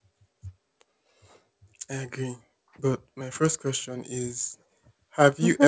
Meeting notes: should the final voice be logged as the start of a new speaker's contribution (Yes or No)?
No